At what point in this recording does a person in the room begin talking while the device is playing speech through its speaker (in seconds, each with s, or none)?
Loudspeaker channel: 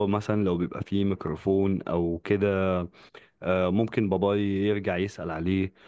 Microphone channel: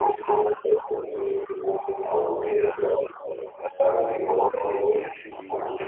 4.9 s